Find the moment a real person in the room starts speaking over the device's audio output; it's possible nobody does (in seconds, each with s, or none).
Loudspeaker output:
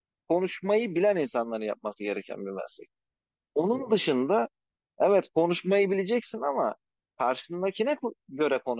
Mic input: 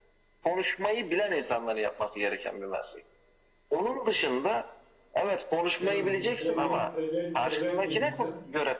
5.8 s